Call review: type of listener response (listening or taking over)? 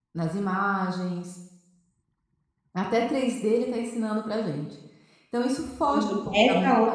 taking over